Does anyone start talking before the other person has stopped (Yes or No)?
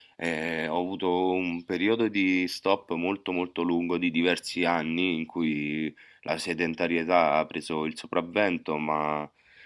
No